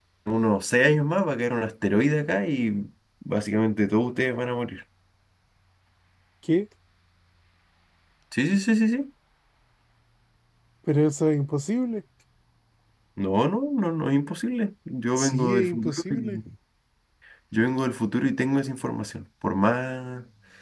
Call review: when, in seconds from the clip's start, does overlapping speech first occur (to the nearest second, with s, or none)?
15 s